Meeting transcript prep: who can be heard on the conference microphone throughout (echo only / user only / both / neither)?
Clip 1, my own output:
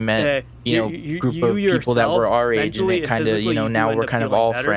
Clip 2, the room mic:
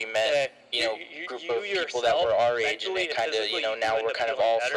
echo only